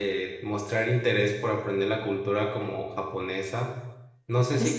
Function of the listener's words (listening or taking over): listening